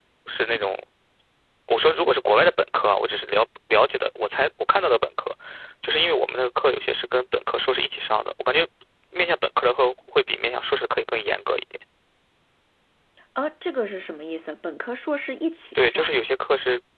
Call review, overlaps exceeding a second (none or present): none